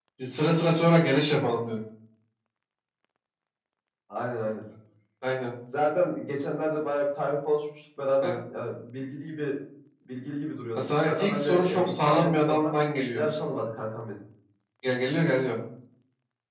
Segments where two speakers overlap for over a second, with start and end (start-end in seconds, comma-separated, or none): 10.8-12.7